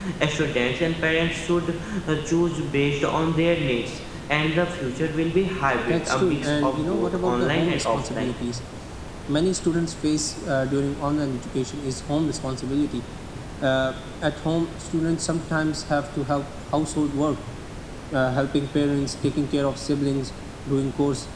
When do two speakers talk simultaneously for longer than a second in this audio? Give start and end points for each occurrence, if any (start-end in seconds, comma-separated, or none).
5.9-8.3